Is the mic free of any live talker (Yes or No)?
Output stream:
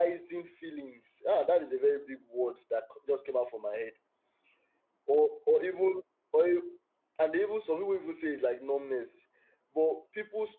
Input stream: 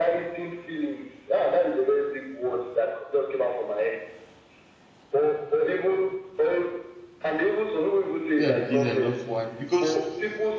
No